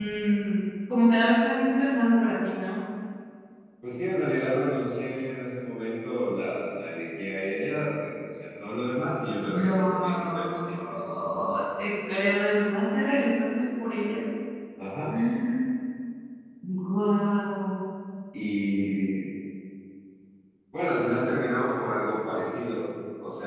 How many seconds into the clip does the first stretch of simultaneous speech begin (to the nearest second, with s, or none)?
9 s